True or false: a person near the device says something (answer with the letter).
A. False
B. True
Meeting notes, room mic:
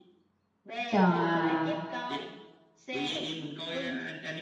B